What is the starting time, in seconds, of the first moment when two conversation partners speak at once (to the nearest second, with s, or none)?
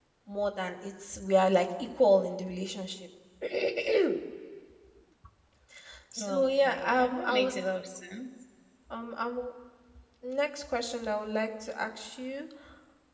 6 s